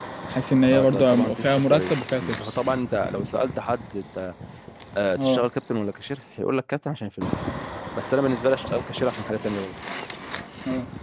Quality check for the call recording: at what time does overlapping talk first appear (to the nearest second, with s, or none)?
1 s